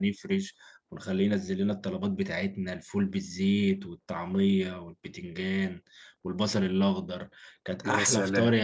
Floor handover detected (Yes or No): No